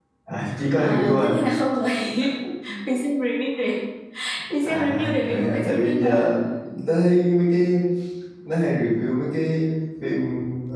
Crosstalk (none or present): present